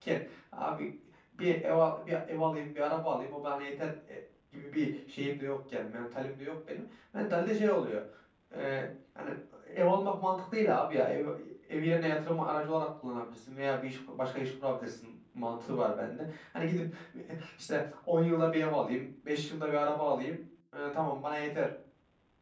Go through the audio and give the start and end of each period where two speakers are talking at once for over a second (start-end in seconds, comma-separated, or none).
none